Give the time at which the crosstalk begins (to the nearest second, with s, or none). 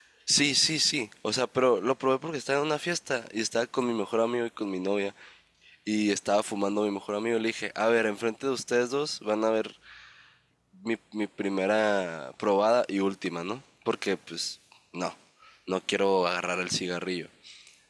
none